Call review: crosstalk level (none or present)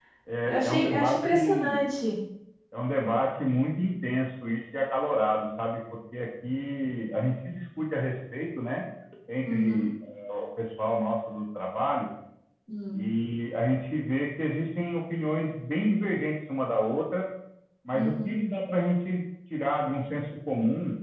present